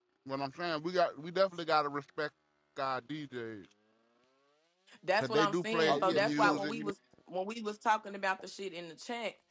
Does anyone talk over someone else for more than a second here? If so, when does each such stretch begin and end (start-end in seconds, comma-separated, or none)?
5.2-6.8